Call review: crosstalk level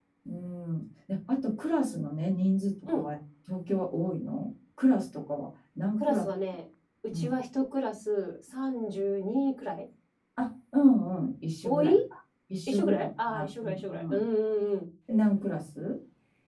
present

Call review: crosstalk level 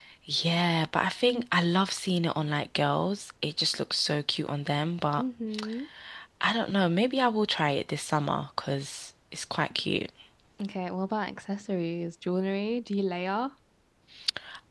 none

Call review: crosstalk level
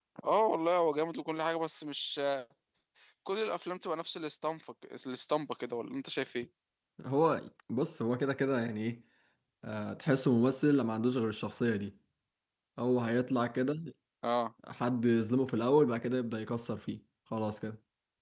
none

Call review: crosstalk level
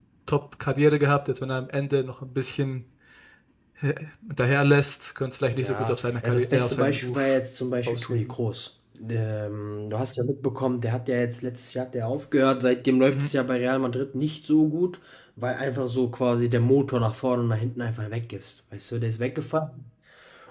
present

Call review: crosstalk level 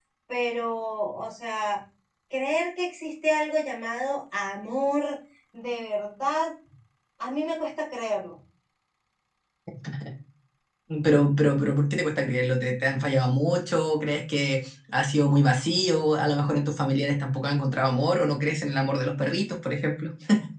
none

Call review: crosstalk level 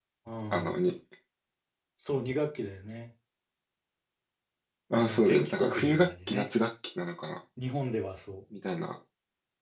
present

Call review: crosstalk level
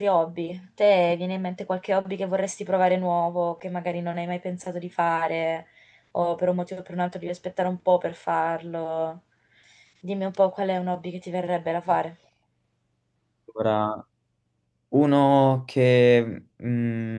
none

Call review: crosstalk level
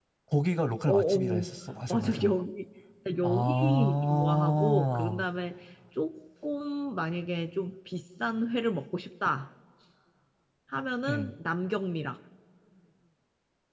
present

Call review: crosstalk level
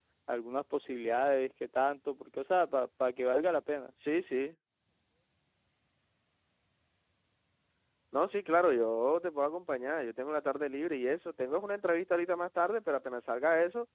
none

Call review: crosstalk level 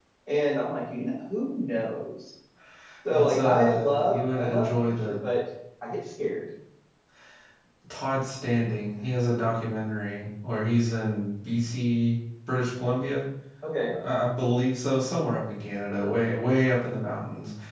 present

